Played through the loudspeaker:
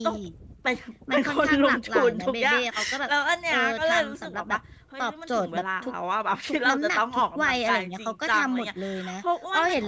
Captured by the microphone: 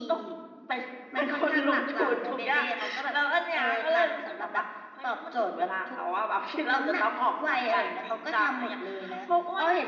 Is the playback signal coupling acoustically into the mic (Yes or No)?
Yes